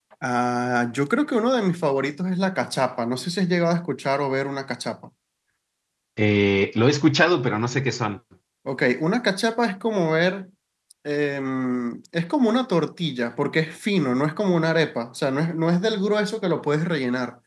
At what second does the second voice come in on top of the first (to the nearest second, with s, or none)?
none